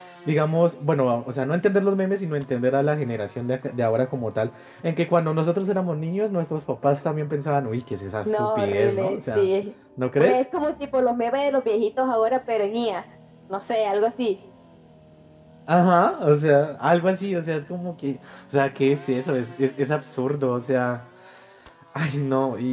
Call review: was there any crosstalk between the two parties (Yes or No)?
Yes